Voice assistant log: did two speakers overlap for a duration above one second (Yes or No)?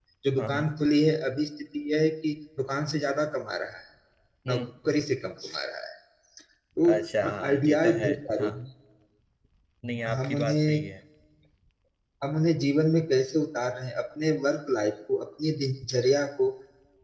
Yes